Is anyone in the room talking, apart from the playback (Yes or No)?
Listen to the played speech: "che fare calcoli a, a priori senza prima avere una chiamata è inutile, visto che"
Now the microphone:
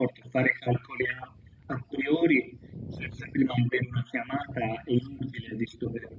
No